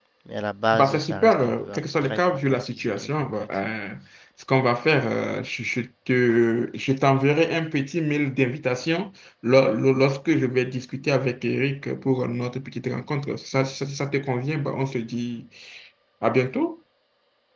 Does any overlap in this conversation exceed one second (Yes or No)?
Yes